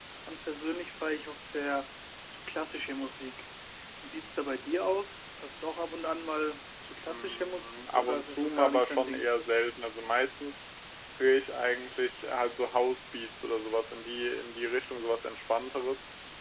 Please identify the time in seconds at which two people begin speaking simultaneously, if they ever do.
7.1 s

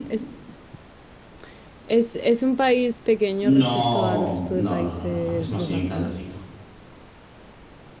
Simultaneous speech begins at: 3.4 s

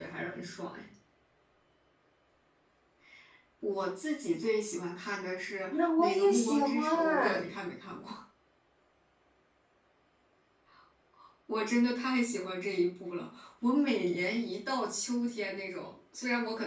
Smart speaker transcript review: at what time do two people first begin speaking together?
5.7 s

